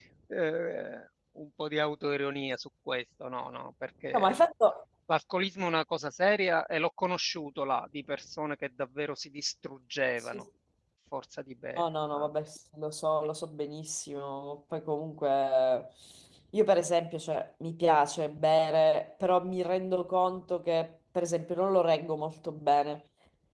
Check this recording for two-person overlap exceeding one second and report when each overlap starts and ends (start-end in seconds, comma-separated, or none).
none